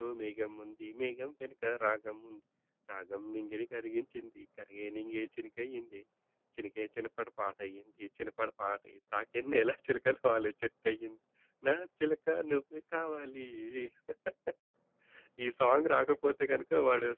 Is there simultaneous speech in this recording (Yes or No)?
No